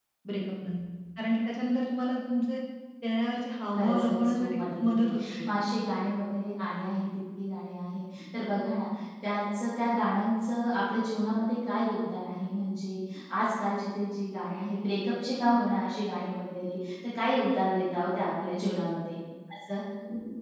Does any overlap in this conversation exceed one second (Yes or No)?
Yes